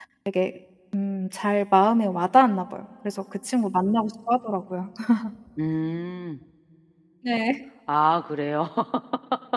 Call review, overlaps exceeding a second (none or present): none